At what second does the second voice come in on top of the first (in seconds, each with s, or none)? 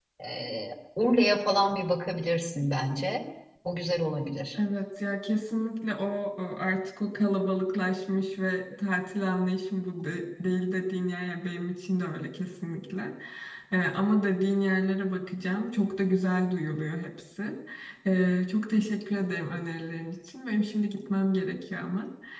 none